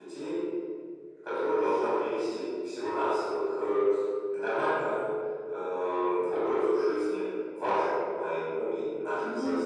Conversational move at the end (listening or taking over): listening